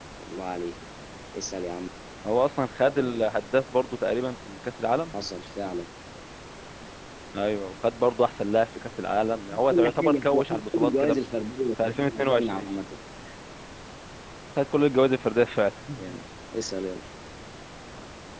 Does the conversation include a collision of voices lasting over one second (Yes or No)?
Yes